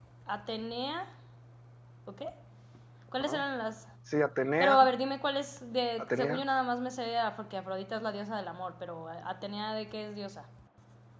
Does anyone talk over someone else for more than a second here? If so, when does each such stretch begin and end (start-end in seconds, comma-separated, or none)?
none